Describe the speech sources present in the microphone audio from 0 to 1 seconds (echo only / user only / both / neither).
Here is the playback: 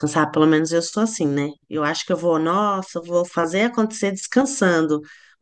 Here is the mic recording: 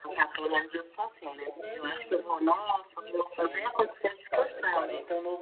echo only